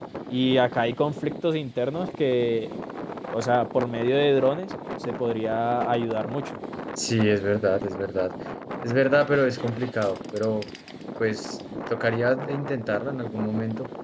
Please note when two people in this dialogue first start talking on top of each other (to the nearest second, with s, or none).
none